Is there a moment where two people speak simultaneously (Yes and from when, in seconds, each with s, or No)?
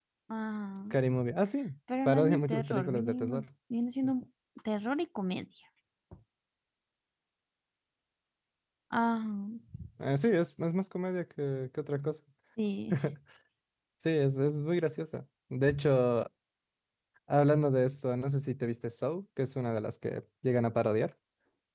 Yes, from 1.9 s